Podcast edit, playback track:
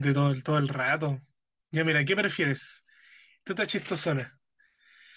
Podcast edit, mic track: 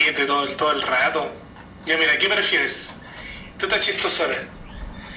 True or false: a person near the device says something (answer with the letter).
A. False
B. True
A